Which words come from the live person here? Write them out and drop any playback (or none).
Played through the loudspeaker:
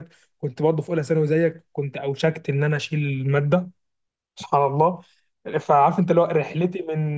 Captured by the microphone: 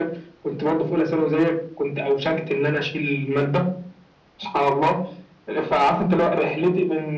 none